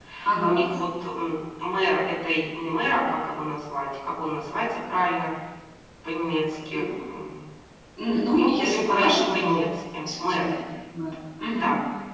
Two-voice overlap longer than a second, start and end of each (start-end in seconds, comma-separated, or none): 8.4-9.6